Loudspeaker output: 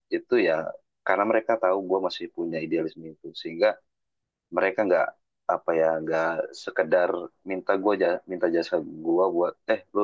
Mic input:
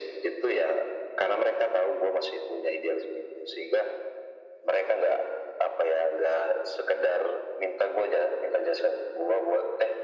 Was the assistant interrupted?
No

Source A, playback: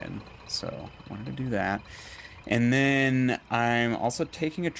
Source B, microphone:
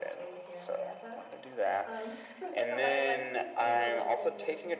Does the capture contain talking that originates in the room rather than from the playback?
Yes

